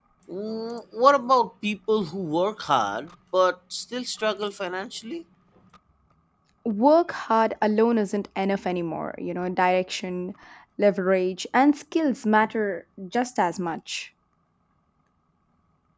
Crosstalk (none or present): none